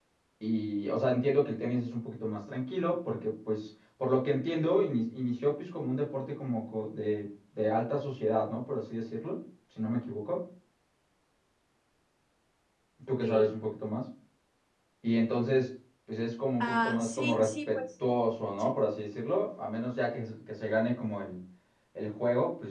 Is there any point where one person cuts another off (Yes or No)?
Yes